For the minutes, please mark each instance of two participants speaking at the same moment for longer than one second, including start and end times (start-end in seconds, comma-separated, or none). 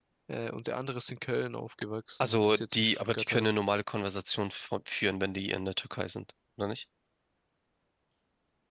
2.2-3.5